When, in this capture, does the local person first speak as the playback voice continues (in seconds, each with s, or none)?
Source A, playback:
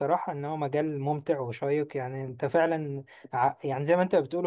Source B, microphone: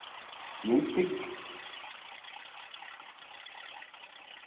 0.6 s